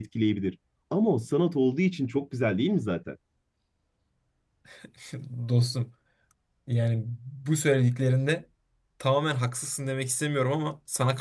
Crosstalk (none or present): none